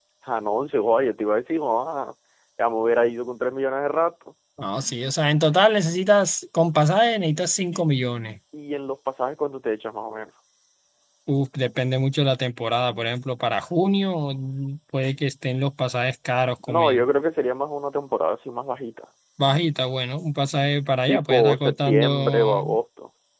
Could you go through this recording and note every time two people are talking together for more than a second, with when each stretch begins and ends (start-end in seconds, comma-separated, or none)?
21.1-22.6